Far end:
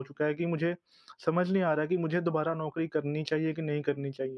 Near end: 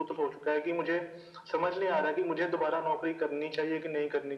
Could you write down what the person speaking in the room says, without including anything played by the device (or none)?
none